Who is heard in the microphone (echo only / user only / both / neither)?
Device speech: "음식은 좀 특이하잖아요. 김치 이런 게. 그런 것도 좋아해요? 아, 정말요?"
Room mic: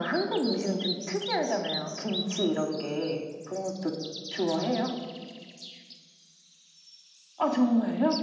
echo only